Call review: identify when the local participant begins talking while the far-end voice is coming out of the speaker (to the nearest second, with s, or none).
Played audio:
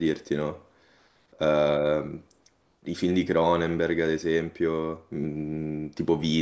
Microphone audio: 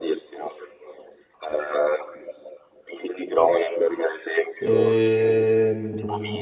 5 s